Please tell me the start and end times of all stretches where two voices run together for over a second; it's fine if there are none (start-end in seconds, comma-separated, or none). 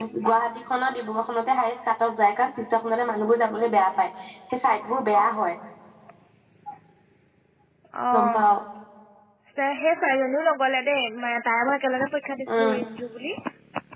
none